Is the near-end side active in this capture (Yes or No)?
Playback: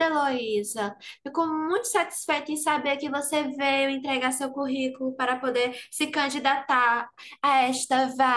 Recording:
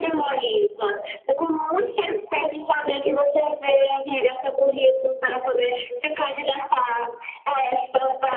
No